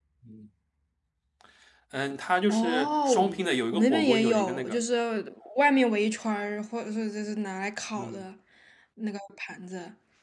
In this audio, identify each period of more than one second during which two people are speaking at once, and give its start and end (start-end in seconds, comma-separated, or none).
2.5-4.8